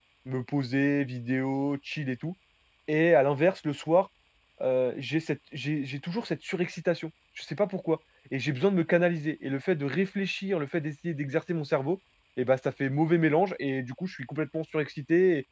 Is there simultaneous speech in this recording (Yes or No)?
No